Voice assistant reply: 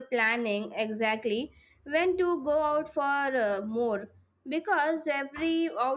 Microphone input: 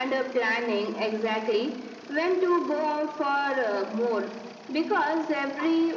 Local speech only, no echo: none

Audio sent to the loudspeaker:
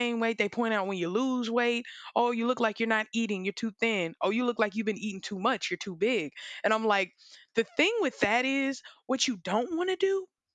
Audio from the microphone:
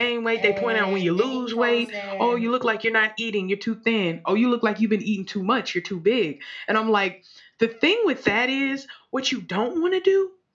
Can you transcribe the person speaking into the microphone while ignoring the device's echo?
uh, then it comes the

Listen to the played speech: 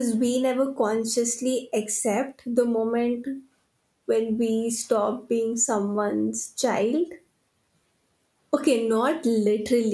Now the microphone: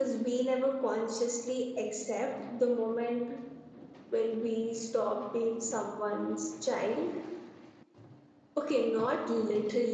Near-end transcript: none

